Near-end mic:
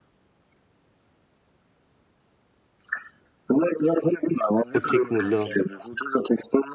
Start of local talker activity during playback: 4.7 s

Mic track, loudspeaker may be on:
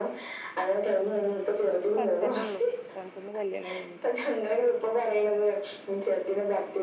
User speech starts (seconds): 1.1 s

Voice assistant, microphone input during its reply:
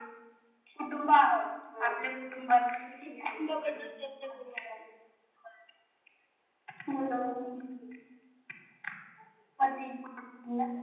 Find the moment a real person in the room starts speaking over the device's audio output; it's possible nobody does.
3.0 s

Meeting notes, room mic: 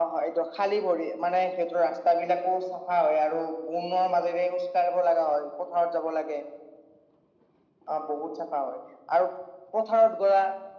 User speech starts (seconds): none

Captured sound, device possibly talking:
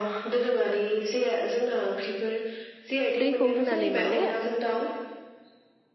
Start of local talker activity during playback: 3.2 s

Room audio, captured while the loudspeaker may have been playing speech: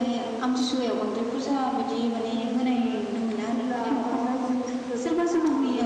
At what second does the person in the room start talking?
none

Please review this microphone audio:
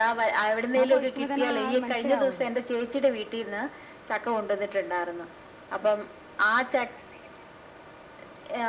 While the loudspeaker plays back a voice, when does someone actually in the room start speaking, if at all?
0.8 s

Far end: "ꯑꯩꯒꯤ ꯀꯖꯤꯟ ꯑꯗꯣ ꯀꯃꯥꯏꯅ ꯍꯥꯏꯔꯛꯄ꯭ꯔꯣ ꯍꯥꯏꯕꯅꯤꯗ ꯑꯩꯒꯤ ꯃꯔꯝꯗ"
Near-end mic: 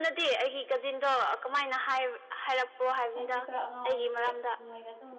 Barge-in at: 3.1 s

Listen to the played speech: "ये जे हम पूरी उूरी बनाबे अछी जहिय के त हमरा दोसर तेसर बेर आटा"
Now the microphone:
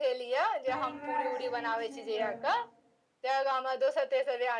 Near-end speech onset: 0.7 s

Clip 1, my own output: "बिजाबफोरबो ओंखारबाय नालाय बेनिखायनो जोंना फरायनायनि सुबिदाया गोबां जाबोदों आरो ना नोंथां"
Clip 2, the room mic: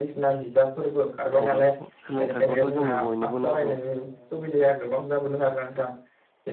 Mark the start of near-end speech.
1.4 s

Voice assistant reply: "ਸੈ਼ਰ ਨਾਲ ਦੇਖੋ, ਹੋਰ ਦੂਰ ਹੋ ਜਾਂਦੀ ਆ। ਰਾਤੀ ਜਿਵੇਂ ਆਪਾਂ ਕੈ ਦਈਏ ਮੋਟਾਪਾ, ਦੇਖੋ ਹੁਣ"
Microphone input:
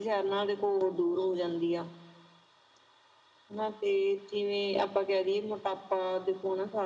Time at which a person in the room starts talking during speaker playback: none

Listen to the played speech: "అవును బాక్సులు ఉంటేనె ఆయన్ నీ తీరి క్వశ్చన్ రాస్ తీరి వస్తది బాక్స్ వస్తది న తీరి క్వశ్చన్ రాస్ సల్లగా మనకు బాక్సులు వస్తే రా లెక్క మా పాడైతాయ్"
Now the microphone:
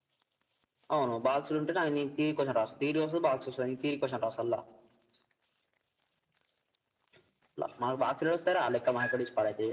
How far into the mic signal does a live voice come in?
none

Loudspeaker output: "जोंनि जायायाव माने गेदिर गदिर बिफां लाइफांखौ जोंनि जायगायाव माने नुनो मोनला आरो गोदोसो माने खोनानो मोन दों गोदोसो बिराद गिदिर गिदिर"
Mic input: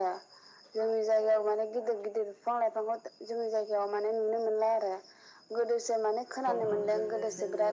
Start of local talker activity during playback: 6.5 s

